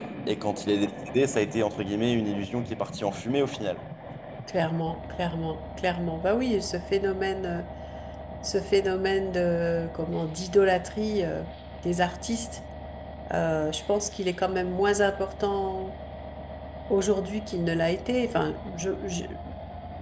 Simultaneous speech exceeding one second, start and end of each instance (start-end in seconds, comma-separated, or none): none